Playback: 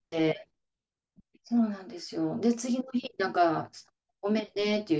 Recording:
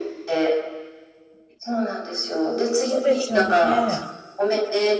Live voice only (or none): うですよね。